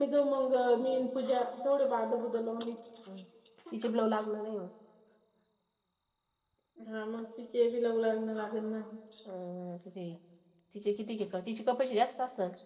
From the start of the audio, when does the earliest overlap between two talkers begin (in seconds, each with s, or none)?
none